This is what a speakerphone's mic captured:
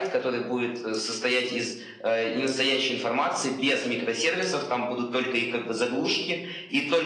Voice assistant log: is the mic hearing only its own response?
Yes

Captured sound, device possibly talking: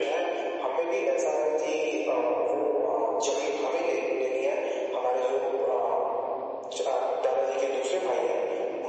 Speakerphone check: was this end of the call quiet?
Yes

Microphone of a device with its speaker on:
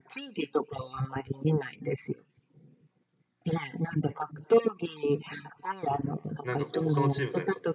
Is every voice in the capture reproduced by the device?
No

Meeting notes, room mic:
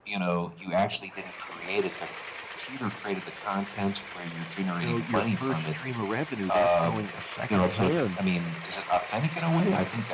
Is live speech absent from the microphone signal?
No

